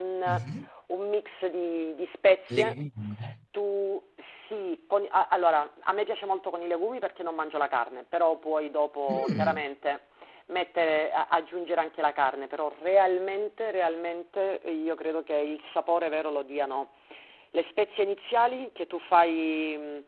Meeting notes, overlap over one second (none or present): none